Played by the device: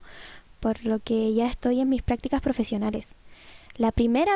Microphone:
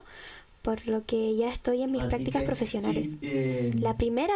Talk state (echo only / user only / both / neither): both